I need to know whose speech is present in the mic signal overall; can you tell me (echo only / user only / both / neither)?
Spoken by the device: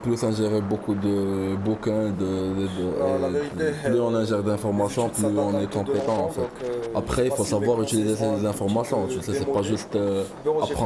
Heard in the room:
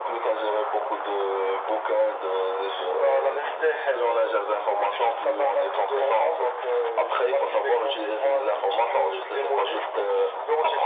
echo only